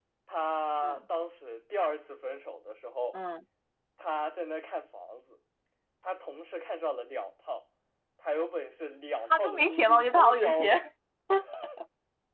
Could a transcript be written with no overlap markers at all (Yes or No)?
No